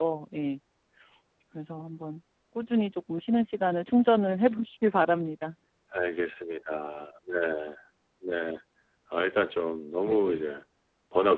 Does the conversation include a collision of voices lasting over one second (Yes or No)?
No